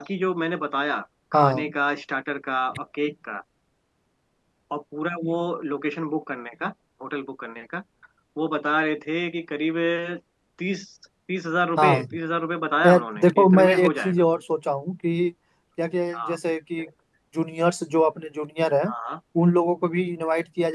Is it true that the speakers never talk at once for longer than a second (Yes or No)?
No